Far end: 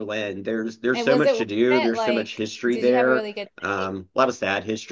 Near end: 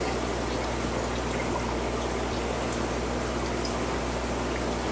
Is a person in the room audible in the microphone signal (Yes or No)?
No